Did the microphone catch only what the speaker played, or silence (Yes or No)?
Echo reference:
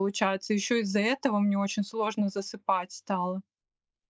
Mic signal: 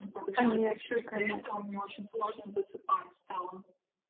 No